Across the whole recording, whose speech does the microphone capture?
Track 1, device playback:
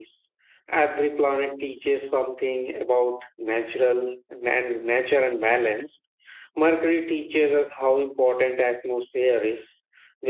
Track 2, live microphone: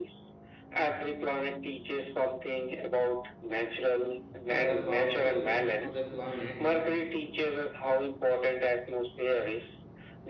both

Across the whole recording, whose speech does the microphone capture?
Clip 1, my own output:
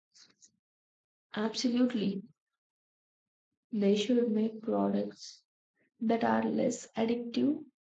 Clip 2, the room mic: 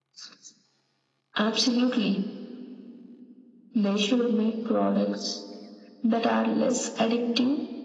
echo only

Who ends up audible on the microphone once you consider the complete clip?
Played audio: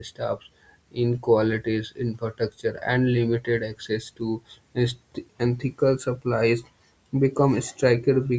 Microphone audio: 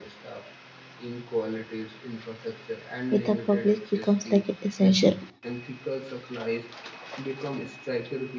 both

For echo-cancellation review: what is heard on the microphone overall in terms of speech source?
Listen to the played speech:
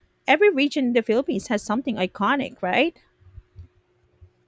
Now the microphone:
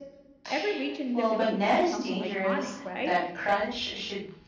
both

